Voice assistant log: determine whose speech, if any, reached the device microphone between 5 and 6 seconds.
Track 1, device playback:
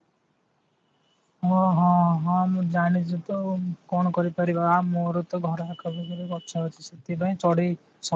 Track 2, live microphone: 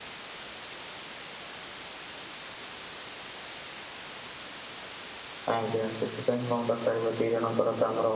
user only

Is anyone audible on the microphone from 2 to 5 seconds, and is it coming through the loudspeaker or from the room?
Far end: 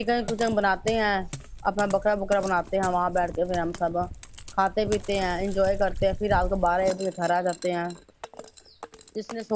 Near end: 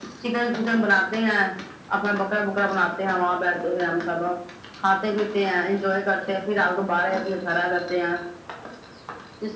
echo only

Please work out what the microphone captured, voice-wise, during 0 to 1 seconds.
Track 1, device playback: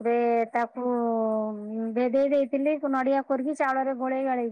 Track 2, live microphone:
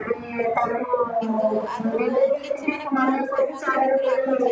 echo only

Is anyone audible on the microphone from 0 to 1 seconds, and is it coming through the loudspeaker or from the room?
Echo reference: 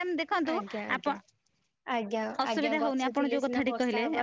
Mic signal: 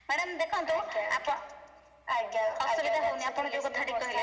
echo only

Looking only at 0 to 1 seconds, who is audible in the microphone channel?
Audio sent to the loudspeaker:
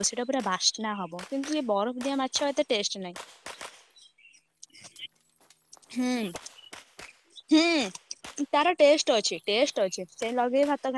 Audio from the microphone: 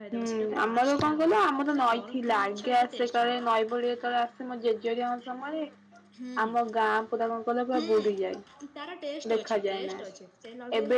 both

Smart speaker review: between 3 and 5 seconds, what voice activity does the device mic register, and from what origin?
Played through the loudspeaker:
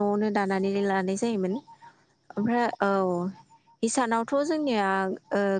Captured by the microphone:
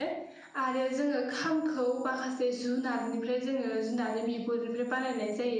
user only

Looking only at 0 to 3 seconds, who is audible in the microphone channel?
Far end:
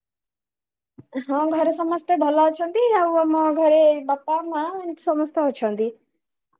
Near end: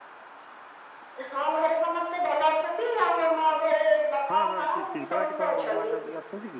echo only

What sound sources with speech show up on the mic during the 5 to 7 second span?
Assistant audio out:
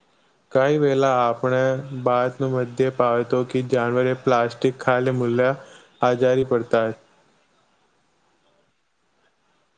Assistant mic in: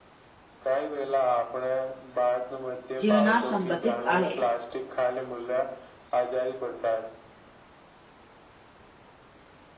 echo only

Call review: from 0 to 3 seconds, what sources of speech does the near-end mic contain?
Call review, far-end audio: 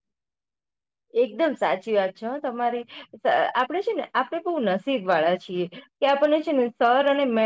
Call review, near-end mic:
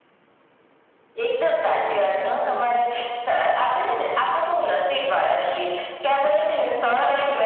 both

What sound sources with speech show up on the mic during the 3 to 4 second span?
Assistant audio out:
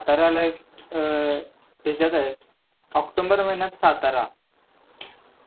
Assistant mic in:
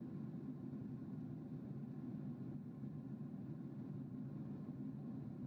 neither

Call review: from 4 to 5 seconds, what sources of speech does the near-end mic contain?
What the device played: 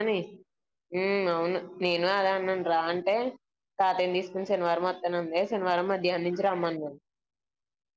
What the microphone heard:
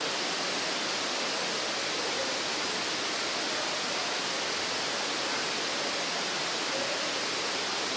neither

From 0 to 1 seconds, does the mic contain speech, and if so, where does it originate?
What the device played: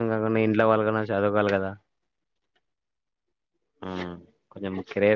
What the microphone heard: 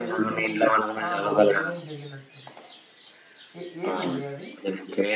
both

